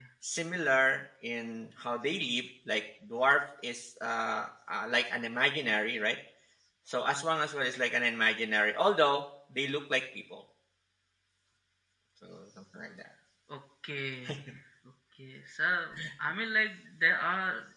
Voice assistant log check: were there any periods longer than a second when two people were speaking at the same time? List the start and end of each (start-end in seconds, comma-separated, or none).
none